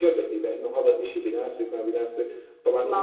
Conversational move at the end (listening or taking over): listening